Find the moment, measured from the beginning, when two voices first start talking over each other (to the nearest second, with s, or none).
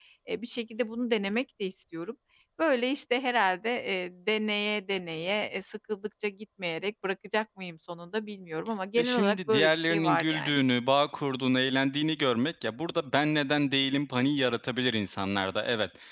9 s